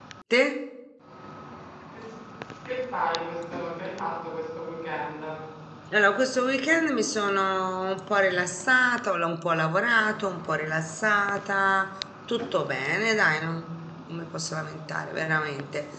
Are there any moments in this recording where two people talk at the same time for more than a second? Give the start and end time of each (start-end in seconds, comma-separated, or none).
none